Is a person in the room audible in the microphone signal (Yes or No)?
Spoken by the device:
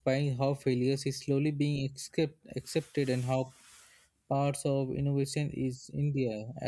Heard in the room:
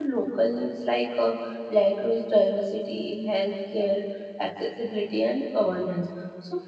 Yes